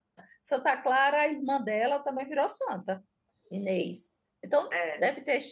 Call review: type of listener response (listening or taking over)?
listening